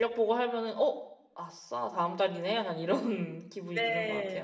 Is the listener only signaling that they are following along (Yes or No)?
No